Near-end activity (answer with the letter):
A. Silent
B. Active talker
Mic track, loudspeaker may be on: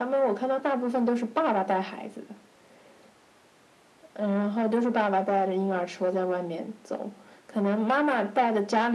A